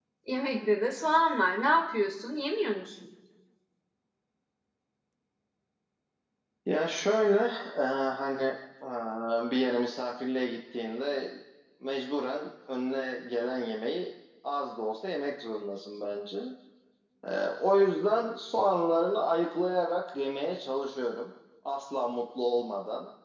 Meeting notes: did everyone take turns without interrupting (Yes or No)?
Yes